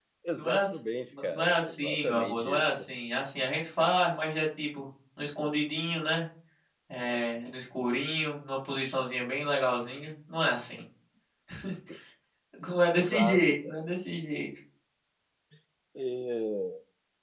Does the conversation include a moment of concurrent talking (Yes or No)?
Yes